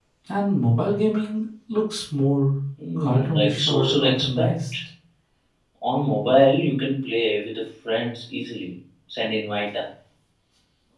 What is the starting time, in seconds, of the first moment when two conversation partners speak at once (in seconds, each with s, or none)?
2.8 s